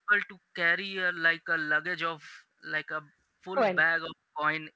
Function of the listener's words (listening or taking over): listening